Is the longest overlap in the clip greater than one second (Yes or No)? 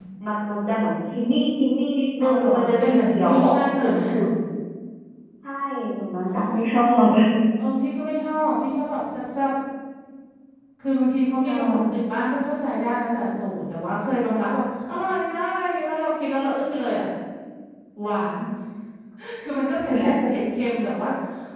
Yes